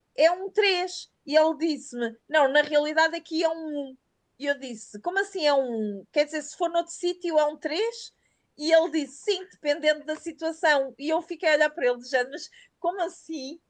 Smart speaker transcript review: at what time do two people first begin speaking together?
none

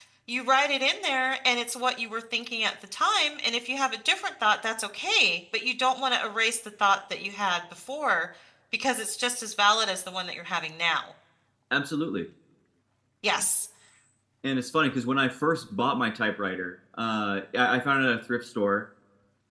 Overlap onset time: none

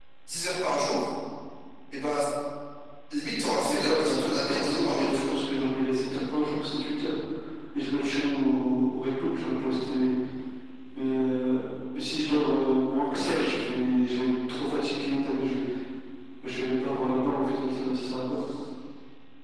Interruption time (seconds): 3.6 s

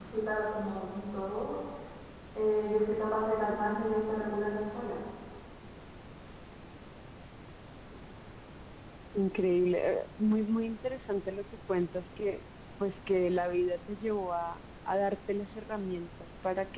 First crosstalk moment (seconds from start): none

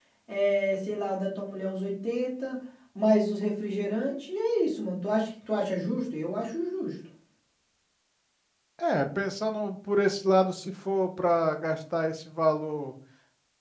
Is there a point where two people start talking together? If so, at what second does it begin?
none

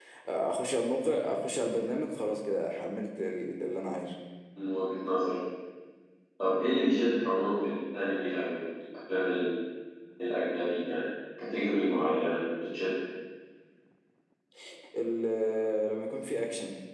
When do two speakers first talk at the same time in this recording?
none

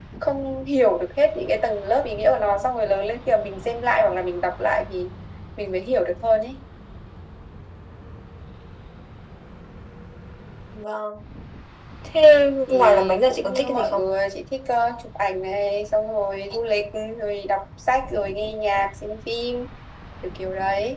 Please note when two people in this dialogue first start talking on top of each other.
12.7 s

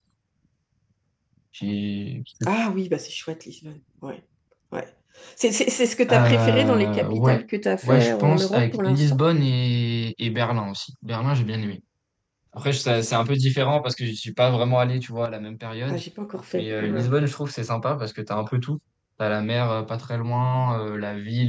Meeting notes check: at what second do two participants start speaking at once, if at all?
6.1 s

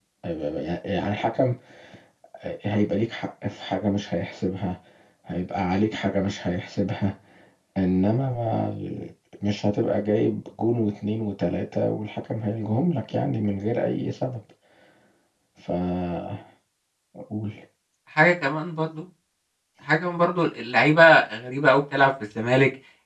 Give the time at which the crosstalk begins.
none

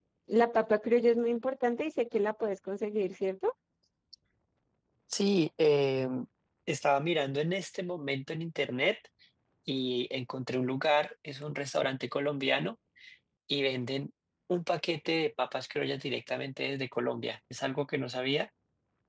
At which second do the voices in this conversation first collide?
none

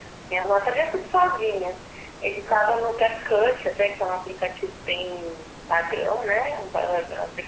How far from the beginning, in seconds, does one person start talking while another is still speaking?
none

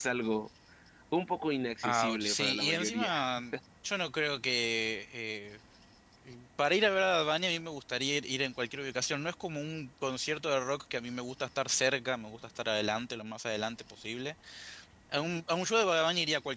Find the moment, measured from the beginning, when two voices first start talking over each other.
1.8 s

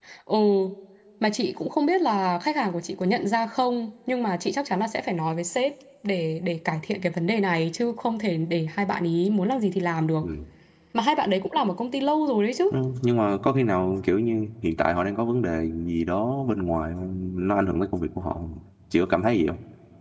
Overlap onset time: none

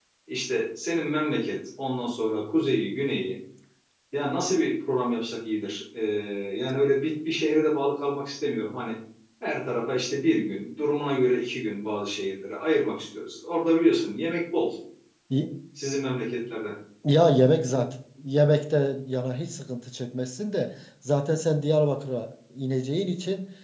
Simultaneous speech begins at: none

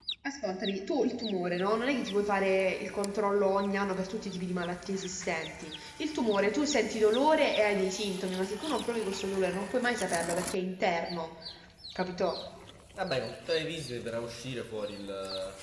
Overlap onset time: none

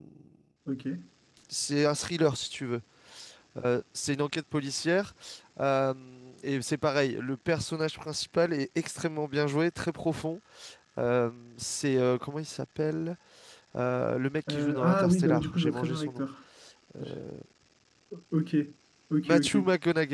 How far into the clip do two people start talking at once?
14.5 s

